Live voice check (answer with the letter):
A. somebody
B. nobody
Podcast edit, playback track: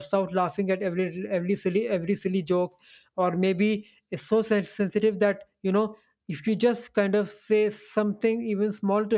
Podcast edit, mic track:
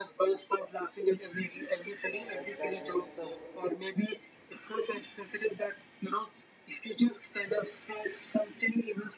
A